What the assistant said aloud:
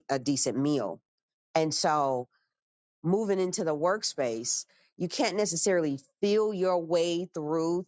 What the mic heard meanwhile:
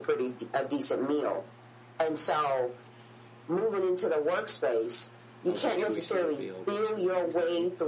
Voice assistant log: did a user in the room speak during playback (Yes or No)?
Yes